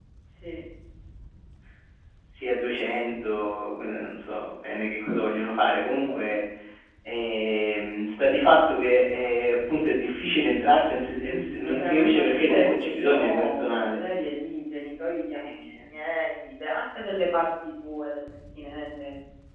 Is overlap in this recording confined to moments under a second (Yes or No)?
No